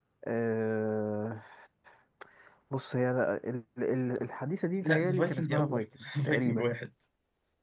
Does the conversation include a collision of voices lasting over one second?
Yes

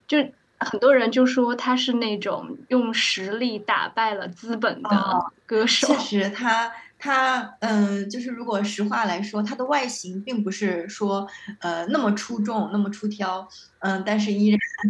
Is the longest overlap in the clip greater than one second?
No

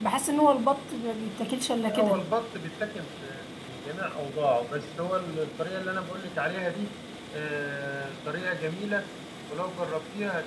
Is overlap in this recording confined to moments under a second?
Yes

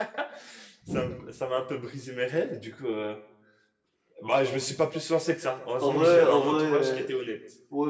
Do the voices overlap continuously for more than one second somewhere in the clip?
Yes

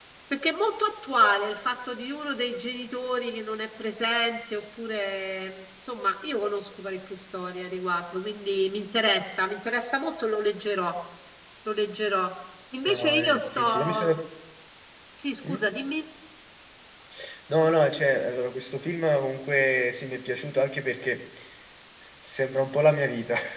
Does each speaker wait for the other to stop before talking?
No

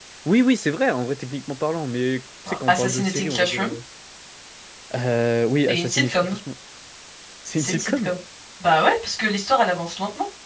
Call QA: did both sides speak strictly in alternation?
No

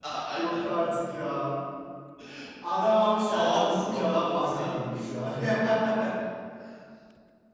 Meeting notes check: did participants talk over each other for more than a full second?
Yes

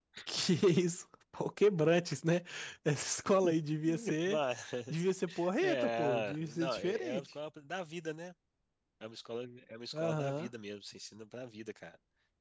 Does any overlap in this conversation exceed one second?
Yes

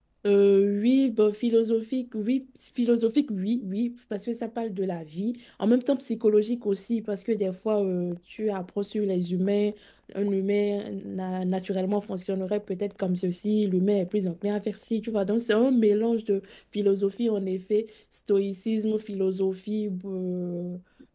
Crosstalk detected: No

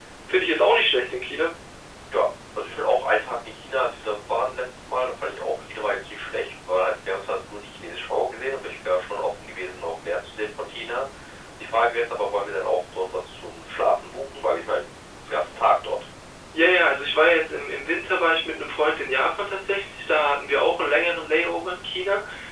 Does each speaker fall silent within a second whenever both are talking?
Yes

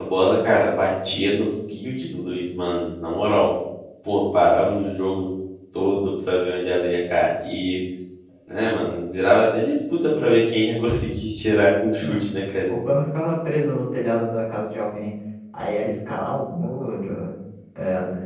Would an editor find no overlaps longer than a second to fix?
Yes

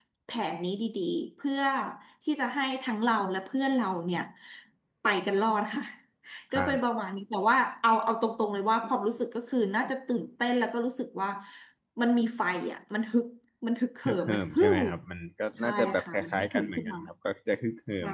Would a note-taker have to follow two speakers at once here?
Yes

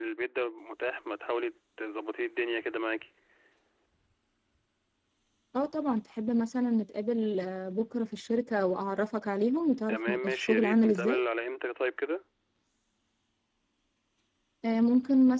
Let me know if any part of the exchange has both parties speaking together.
Yes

